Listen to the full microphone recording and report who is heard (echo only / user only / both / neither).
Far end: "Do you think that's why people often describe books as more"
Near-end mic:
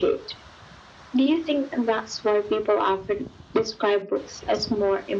echo only